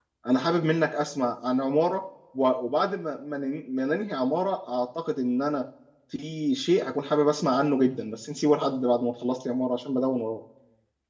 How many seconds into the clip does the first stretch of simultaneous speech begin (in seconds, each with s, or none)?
none